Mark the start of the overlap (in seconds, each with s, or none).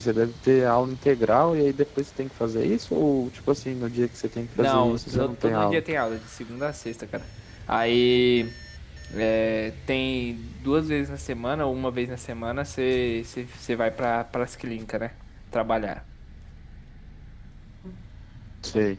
4.6 s